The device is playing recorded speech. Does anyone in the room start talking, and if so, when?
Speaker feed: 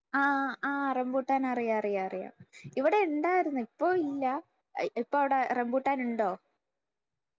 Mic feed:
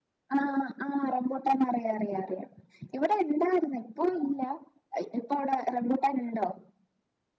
none

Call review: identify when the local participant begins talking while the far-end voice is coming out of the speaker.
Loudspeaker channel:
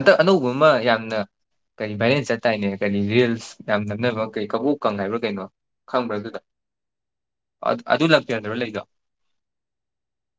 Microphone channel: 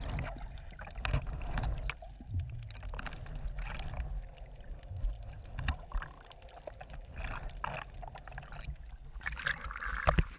none

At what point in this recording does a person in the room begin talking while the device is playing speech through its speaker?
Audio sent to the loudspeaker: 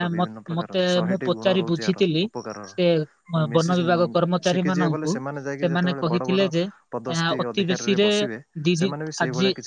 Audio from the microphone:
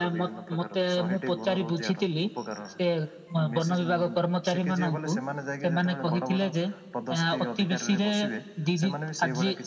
none

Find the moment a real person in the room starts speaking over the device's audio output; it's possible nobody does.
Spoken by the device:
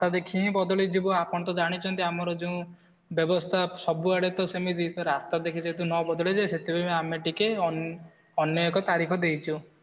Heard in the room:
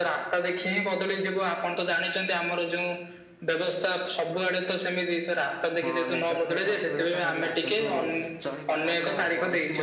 5.8 s

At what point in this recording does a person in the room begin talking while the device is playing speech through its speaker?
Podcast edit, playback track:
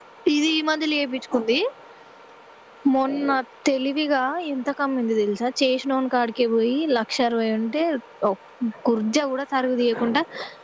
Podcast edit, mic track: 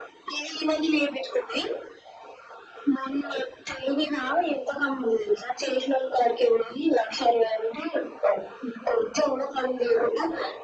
none

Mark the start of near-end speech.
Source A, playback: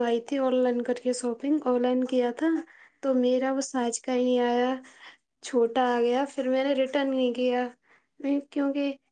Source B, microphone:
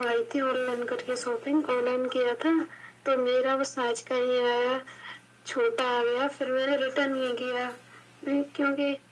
none

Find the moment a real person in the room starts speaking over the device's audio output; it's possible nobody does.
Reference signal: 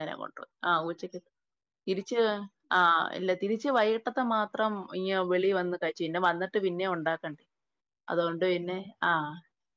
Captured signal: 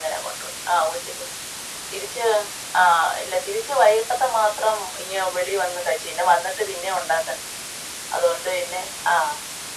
none

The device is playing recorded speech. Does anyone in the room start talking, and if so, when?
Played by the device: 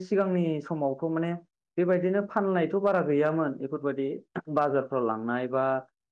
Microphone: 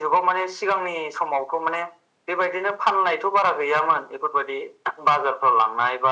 none

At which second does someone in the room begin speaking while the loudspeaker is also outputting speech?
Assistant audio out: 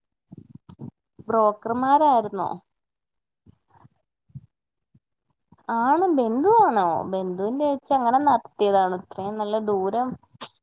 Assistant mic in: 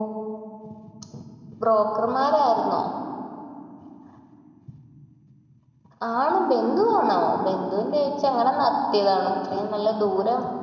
none

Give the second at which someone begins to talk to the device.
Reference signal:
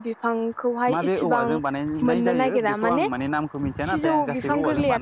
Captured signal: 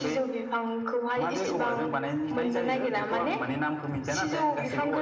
none

